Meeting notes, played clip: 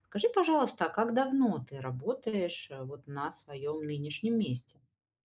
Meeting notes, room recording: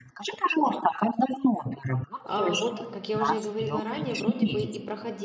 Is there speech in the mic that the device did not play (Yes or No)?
Yes